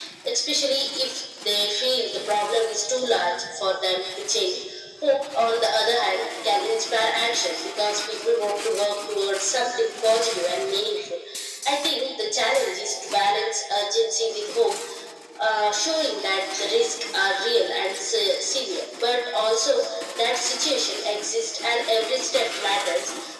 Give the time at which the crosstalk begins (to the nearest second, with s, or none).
none